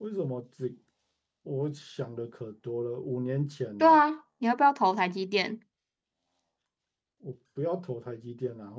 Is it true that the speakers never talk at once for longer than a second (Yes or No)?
Yes